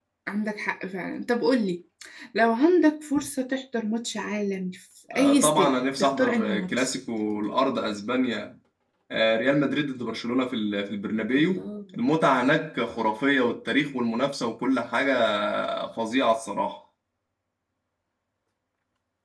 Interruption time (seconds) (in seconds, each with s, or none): 5.1 s